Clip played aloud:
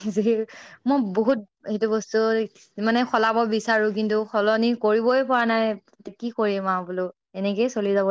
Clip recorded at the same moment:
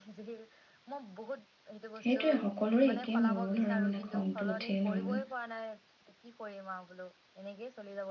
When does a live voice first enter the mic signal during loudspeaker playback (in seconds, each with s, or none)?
2.0 s